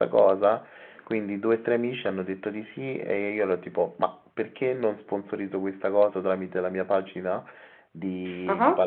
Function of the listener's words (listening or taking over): listening